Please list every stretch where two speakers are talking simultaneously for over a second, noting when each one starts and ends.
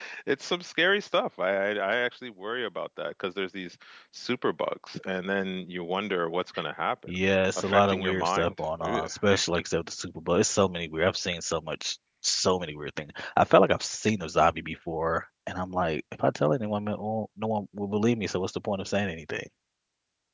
7.6-9.1

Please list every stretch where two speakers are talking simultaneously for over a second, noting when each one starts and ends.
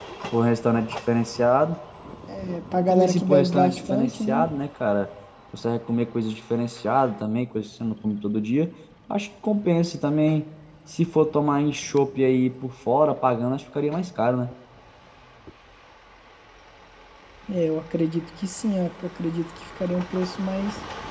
2.8-4.5

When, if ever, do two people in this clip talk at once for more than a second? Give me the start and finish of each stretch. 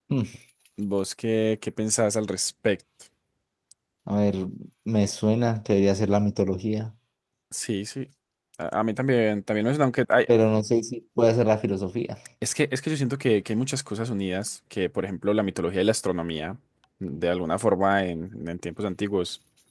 none

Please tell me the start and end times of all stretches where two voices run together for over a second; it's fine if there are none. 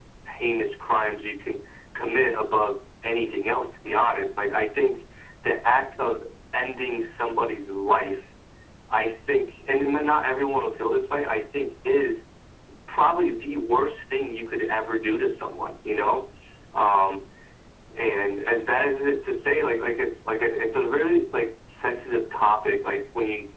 none

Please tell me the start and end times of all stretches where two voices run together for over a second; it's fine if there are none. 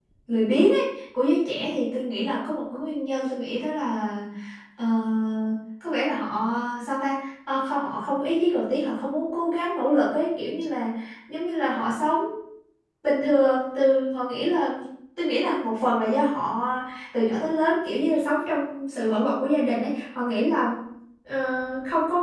none

